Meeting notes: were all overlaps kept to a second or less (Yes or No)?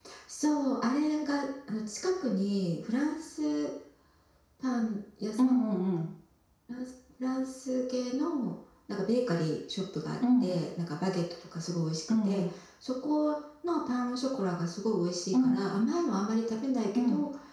Yes